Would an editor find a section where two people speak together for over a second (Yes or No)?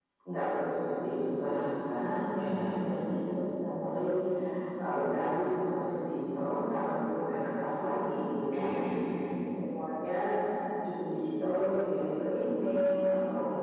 No